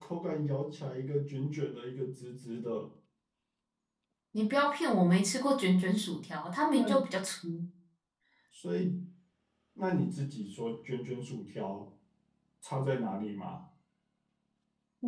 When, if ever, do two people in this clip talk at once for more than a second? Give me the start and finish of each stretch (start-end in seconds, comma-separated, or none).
none